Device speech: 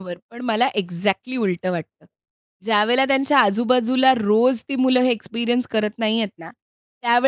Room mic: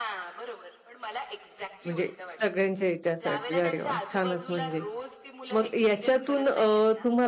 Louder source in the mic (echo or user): user